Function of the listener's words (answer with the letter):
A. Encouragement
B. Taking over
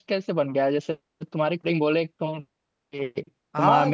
A